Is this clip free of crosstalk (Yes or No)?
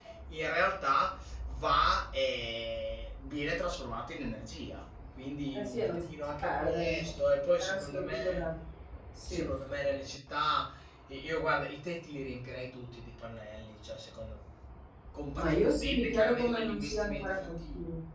No